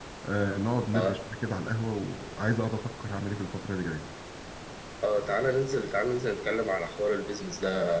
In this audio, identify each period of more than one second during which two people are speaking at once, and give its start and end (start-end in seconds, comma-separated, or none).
none